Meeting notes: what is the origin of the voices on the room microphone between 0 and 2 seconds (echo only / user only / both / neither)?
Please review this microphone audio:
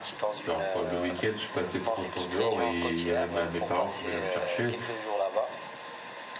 both